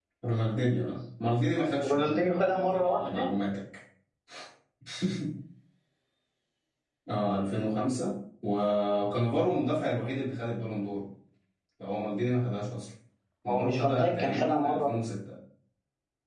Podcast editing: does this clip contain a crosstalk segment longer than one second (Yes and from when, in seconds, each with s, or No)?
Yes, from 1.8 s